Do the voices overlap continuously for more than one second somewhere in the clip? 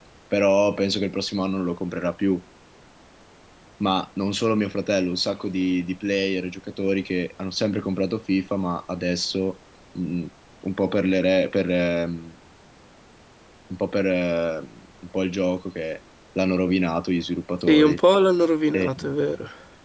No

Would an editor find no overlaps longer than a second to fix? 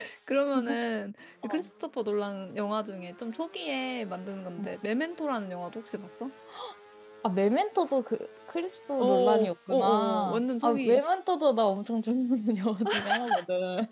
No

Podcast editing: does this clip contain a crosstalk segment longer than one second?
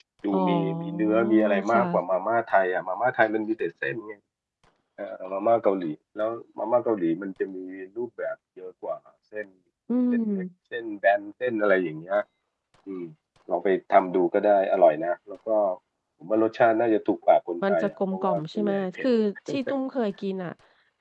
Yes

